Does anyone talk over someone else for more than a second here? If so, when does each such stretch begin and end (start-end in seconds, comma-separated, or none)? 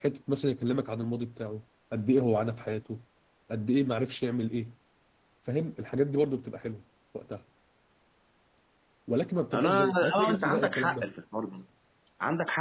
9.5-11.1